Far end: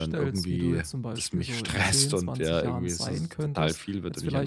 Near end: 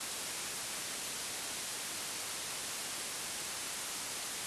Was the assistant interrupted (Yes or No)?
No